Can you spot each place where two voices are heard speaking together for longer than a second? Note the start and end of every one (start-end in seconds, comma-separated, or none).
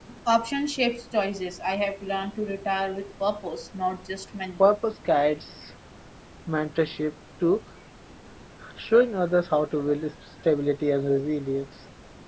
none